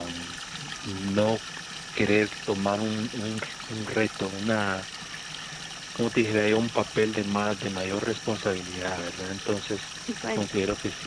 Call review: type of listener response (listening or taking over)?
listening